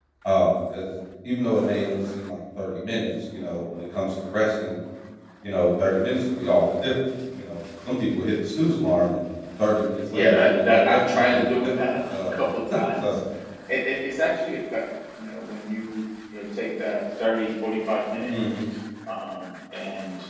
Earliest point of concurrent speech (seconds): 10.0 s

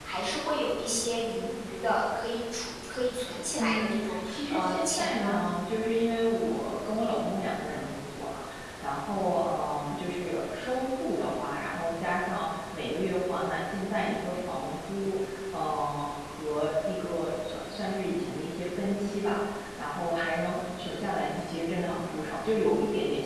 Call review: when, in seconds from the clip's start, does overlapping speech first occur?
3.6 s

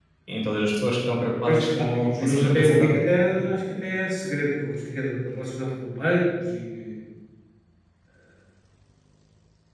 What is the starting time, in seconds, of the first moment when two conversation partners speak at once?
1.4 s

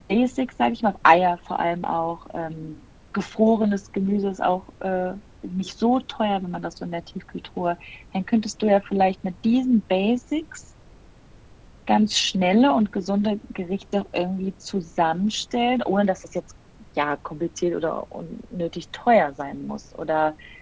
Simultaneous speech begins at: none

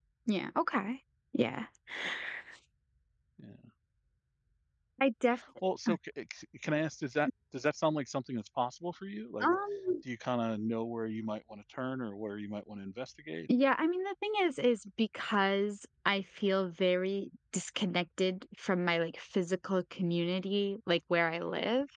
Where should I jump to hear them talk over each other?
none

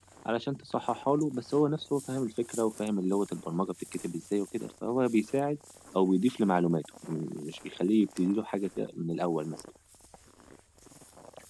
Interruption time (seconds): none

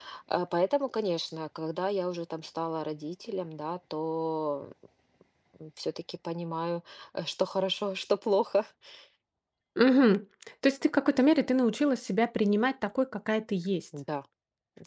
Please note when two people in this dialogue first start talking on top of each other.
none

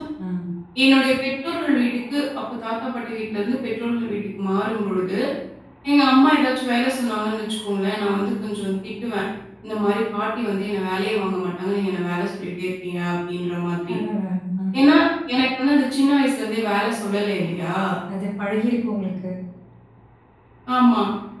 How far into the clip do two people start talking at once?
none

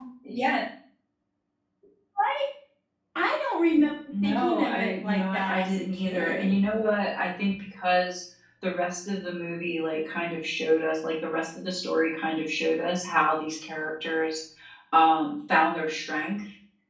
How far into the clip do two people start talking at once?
4.1 s

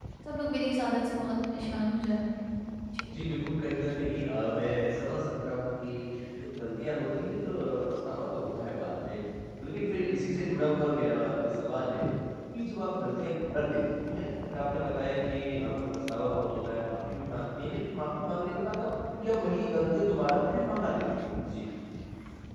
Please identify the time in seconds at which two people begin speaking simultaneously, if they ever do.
none

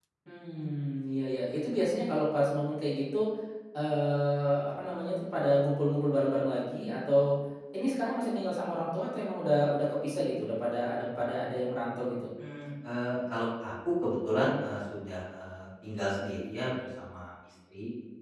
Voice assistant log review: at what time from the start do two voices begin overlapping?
none

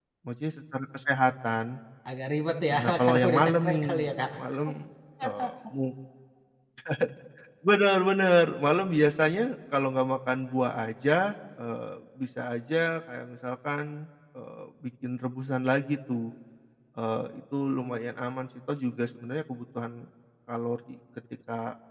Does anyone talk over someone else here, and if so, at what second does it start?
2.7 s

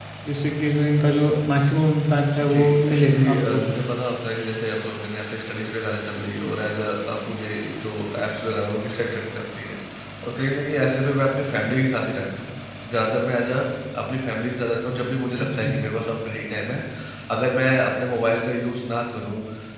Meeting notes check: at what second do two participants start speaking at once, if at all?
2.4 s

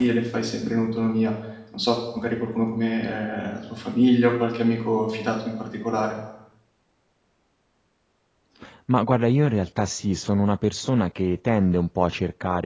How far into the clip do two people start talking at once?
none

